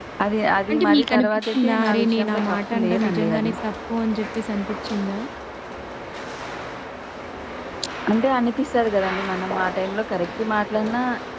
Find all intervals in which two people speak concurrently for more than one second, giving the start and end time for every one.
0.7-3.5

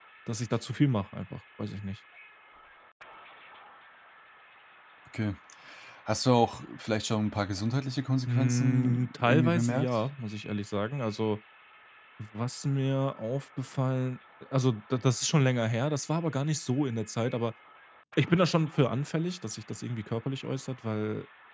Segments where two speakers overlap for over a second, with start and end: 8.3-10.0

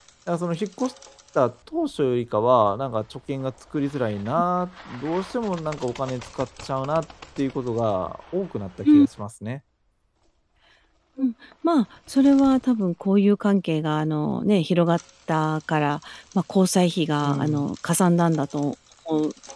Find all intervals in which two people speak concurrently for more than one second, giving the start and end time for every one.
none

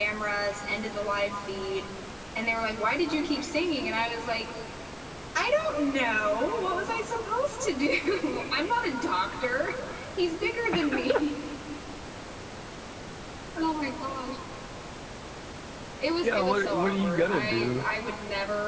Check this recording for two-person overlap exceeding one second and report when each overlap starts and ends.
16.2-17.9

